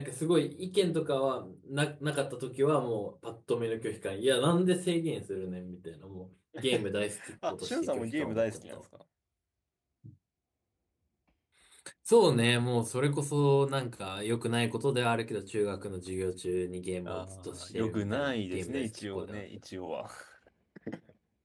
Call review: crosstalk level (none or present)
present